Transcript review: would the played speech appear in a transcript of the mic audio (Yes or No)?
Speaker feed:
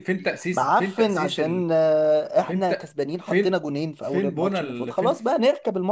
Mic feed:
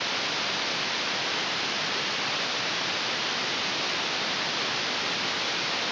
No